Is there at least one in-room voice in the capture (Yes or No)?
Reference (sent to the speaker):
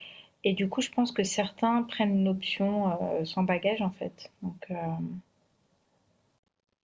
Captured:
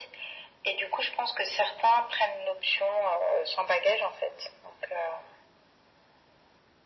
No